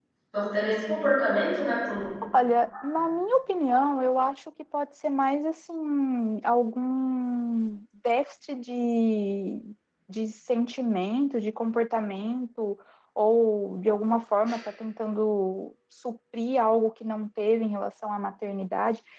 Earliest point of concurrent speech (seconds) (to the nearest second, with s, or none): none